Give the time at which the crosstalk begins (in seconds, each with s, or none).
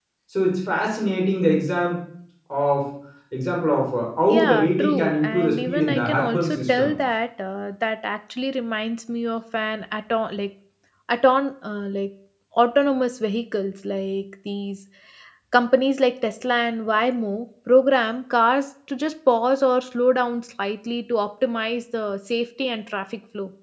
4.3 s